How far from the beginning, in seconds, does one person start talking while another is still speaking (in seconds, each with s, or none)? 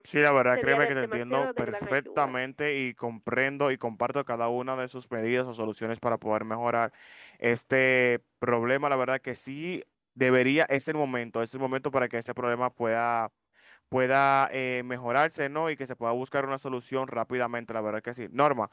0.6 s